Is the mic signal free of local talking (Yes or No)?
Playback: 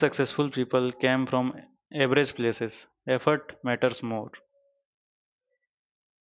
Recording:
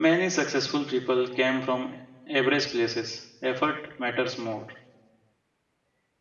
Yes